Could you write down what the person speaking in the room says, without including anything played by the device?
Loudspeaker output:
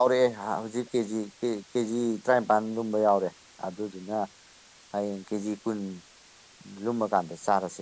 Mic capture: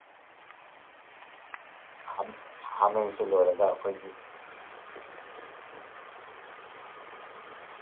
ꯍꯥꯝ ꯍꯥꯃꯦꯡꯁꯦ ꯂꯣꯏꯔꯒ ꯑꯈꯣꯏꯒꯤ

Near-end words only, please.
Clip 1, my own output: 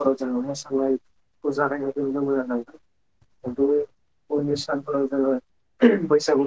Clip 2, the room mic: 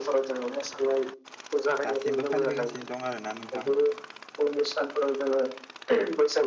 दासिमबो फालिबोगासिनो दं आरो ना नोंथां

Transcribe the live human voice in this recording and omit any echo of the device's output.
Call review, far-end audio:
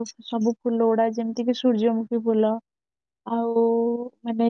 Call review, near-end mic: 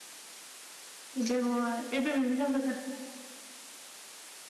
ଏବେ ବ- ଏବେ ବିଭିନ୍ନ ପ୍ରକାର

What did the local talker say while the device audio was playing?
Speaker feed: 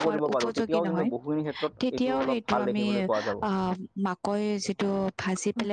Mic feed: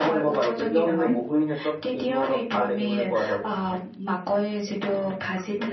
none

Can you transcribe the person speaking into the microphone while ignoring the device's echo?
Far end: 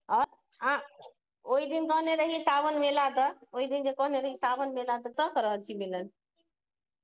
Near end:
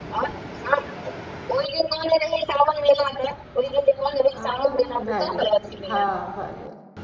आं भए गेल हाँ भए गेल

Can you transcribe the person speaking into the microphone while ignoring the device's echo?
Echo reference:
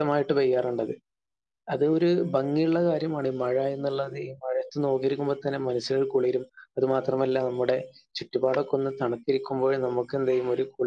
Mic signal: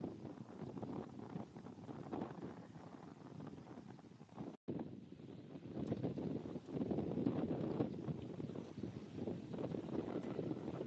none

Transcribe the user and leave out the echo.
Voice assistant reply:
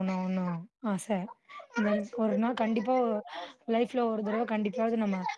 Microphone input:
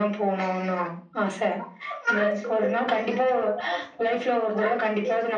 none

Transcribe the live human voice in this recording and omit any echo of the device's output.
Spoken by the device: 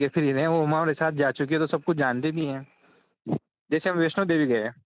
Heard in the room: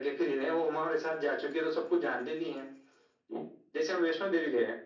none

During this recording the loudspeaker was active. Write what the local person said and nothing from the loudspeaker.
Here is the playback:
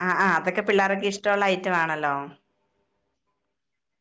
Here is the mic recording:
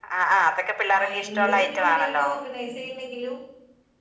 ആഹ് എന്ത് പരിപാടി അവര് ഓർഗനൈസെയ്യ്ണ്ടെങ്കിലും.

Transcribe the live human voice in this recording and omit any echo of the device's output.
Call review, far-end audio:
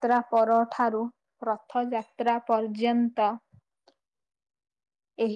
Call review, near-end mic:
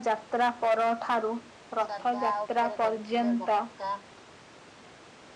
ସାଧା ଉପରେ କରିଥିଲେ ମକା

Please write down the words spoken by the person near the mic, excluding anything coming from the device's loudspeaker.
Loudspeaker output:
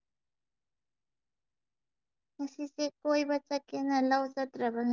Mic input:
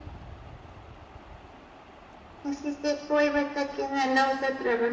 none

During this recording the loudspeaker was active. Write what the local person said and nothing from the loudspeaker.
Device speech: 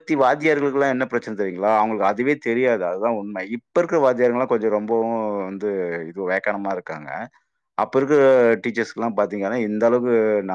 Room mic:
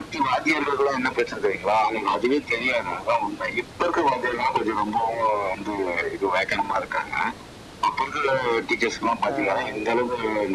ஆ ஆ ஆ

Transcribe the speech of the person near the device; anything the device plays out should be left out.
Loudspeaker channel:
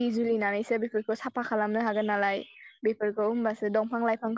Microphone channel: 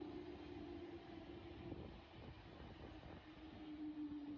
none

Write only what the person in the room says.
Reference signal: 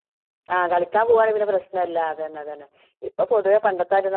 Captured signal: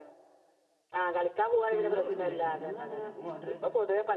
ഞങ്ങള് വീട്ടില്ണ്ടാക്ക ങ്ങളെങ്ങനെ ഓർ

